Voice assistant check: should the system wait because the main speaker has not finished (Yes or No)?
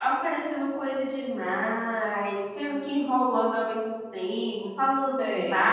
Yes